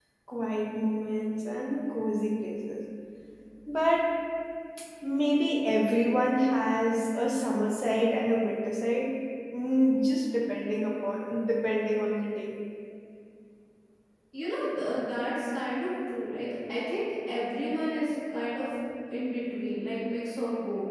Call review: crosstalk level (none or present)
none